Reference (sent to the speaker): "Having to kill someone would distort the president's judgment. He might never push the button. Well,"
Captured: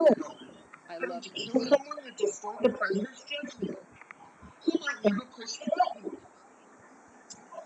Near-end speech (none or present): present